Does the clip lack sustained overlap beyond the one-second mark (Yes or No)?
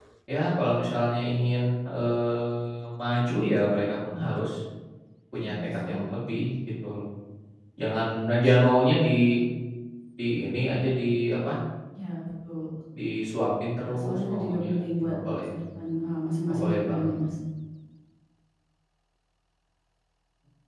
No